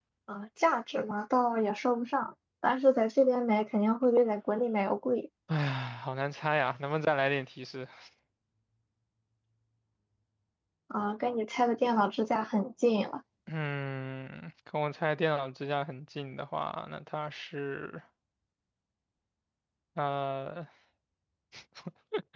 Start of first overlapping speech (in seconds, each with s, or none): none